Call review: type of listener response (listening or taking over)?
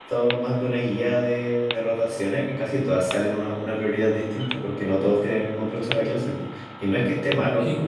listening